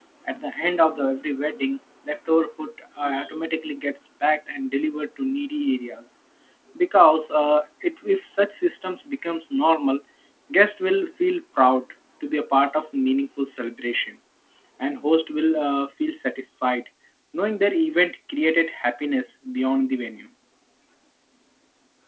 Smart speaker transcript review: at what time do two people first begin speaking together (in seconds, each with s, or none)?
none